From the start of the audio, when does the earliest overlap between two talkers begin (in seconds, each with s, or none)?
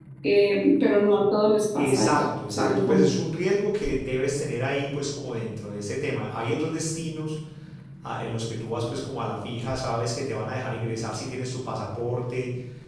1.8 s